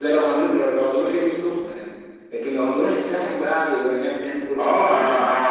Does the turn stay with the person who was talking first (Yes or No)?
No